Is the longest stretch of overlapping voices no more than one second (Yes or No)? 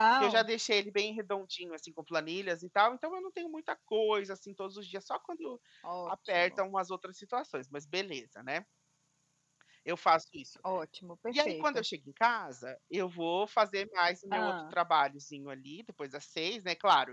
Yes